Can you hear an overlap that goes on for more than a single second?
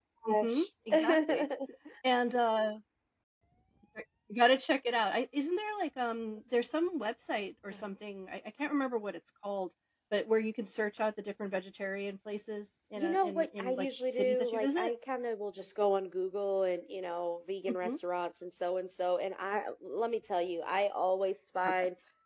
Yes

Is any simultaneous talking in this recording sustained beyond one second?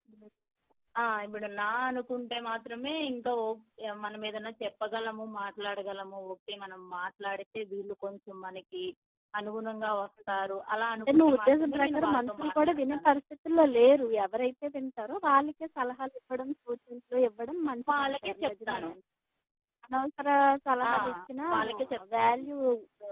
Yes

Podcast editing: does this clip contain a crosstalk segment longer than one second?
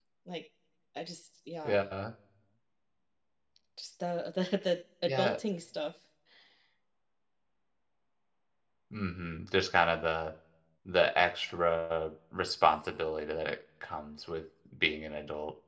No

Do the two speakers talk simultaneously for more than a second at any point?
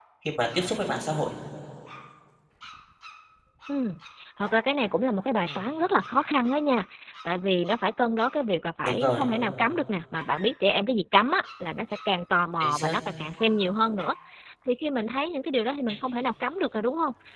No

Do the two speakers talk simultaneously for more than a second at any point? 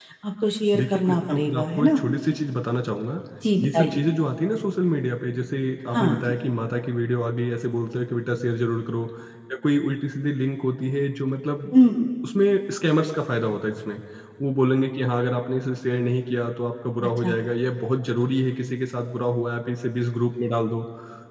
Yes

